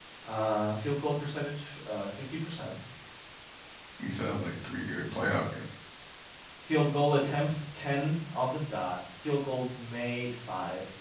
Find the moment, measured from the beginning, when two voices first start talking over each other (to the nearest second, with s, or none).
none